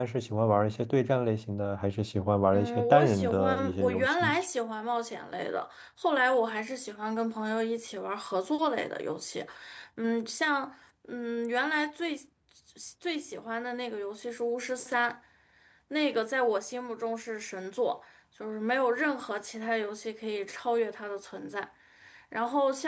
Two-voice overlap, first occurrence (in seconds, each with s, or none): 2.5 s